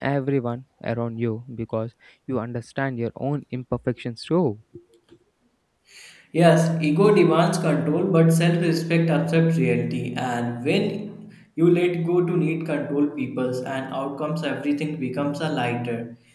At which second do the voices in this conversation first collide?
none

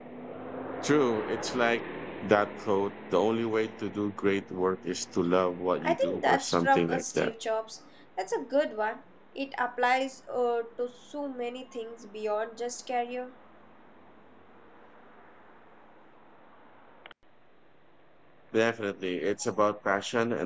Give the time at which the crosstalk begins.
5.8 s

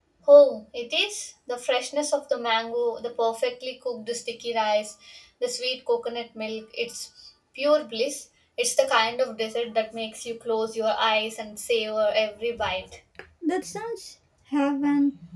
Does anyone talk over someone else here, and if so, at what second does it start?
none

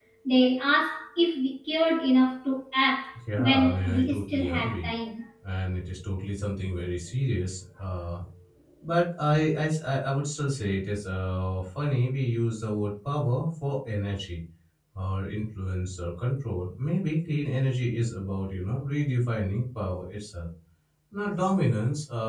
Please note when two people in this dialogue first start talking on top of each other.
3.3 s

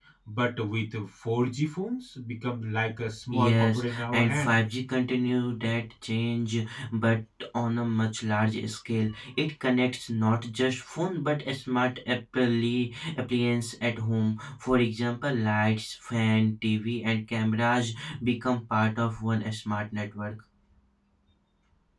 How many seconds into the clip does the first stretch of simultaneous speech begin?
3.3 s

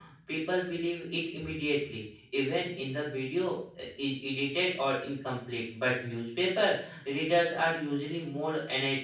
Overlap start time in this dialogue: none

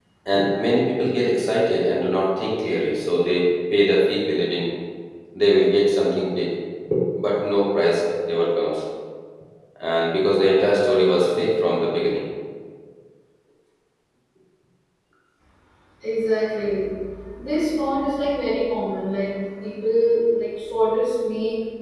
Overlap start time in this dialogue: none

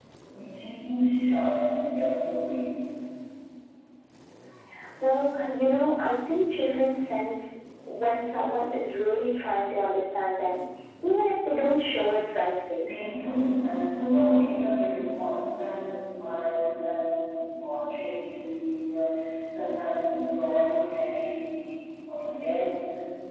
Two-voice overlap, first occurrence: none

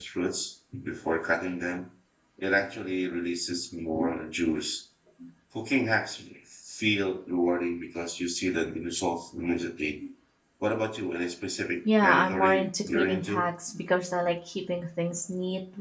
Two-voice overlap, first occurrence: 11.8 s

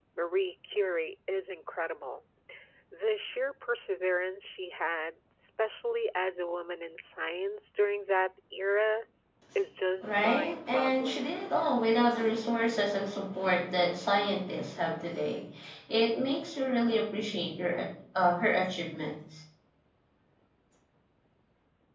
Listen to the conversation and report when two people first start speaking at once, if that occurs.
10.0 s

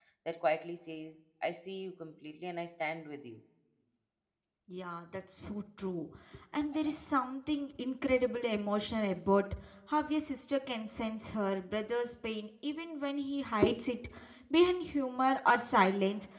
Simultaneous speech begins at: none

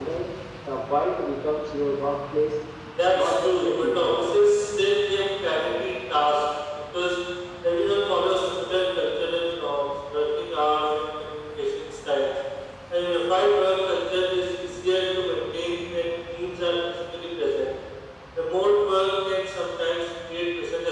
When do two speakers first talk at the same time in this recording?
3.1 s

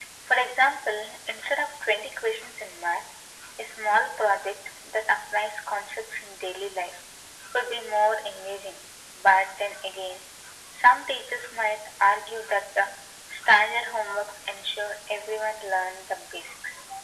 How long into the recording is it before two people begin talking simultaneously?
none

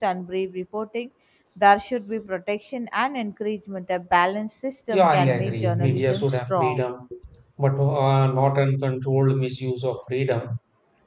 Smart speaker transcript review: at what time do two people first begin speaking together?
4.9 s

